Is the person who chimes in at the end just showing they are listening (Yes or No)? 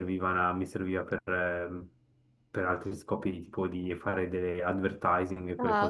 No